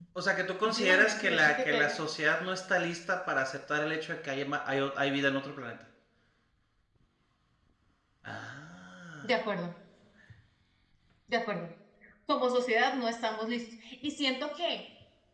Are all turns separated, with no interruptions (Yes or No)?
No